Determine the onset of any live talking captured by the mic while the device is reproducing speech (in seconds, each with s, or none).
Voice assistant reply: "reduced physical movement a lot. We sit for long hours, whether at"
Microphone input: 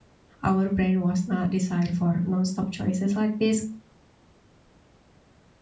0.4 s